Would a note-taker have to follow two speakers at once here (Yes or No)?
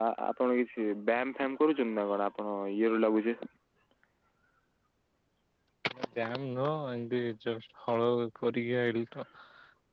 No